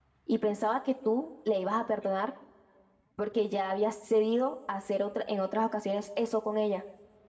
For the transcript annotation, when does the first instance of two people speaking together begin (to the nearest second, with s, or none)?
none